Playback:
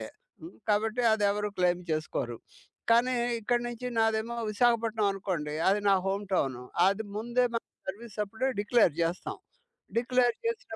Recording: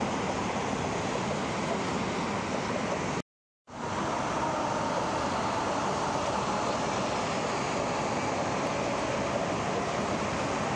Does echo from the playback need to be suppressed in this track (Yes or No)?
No